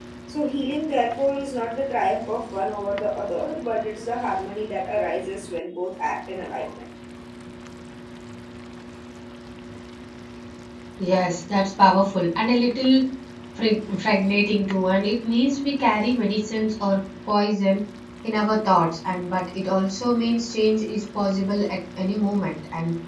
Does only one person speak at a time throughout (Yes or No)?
Yes